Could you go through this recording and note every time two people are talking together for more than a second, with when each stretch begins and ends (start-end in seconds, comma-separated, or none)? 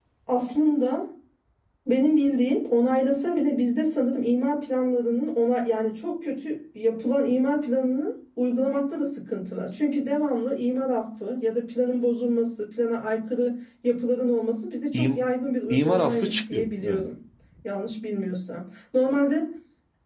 15.7-17.0